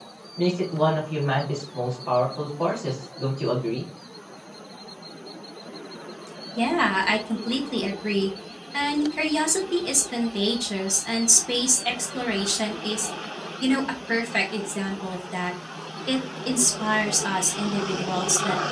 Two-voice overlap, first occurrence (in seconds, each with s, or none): none